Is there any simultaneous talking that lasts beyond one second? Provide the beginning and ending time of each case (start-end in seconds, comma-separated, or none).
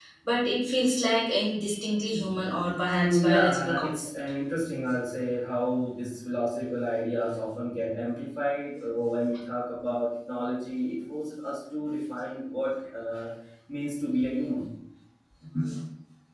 2.8-4.1